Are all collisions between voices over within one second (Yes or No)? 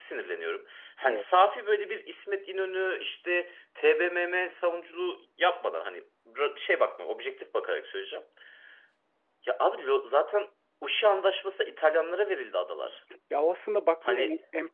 Yes